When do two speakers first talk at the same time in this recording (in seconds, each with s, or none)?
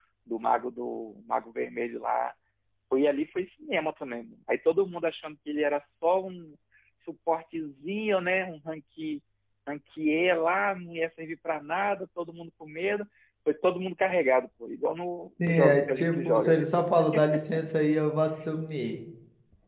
15.4 s